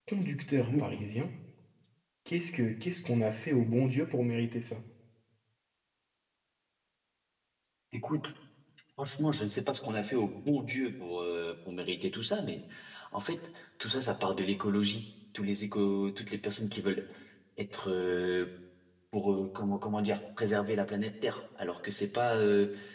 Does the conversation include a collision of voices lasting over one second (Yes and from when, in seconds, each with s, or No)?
No